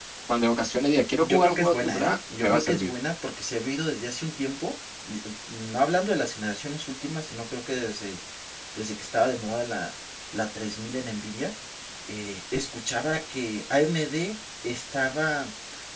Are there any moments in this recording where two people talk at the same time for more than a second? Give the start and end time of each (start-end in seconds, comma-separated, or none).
1.2-2.9